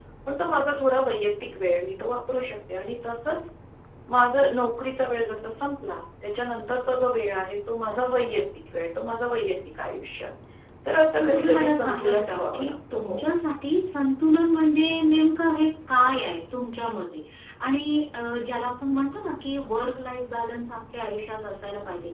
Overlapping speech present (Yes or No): Yes